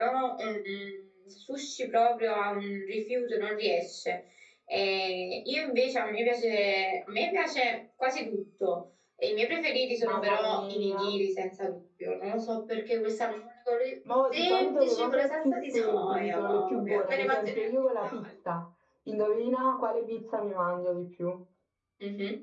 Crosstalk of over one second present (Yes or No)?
Yes